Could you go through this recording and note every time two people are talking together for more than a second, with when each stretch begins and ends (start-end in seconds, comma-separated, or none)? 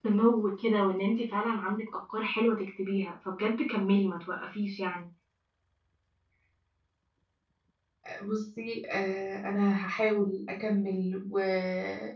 none